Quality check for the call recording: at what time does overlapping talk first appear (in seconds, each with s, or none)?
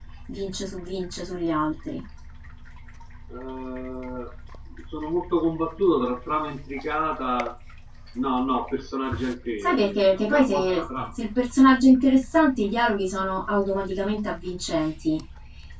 9.6 s